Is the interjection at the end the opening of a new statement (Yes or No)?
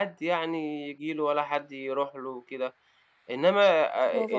No